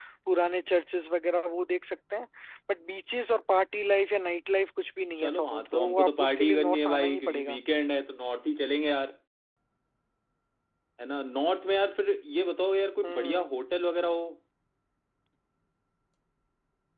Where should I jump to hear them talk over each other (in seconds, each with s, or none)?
5.2 s